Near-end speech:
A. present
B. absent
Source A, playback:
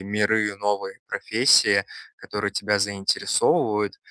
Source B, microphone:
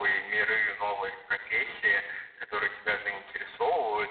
B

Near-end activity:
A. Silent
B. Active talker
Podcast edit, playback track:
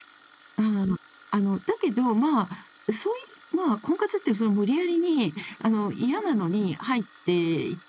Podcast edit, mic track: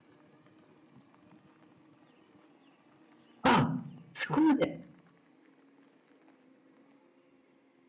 B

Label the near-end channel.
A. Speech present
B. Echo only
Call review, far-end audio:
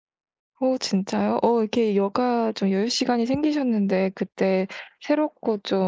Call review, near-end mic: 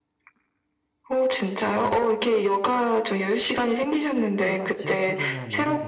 A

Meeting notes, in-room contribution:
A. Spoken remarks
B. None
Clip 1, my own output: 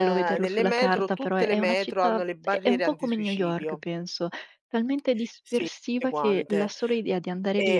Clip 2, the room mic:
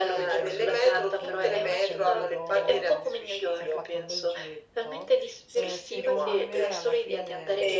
A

